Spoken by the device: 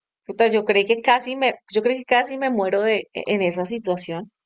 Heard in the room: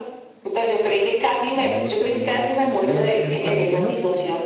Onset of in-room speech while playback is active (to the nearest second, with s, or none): 1 s